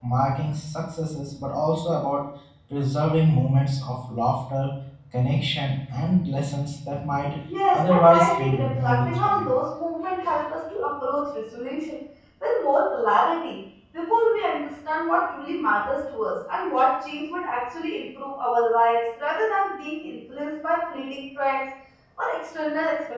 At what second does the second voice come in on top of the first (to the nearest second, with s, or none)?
8 s